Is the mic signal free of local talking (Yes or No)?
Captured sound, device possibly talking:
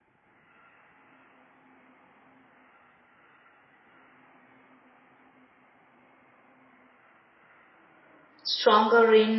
No